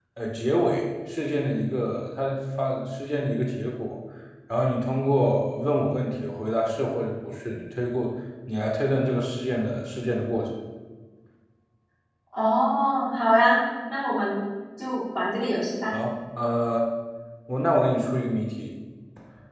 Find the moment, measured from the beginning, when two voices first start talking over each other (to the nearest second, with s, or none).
none